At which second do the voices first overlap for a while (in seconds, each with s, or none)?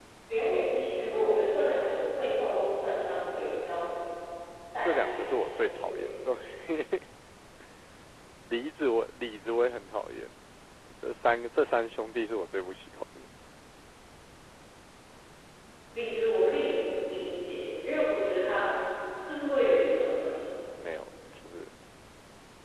4.8 s